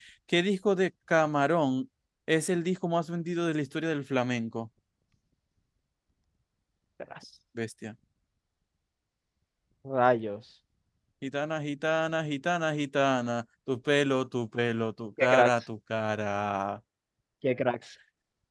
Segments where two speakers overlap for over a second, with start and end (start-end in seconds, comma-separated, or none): none